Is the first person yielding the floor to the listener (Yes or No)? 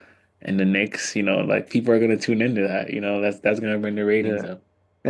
Yes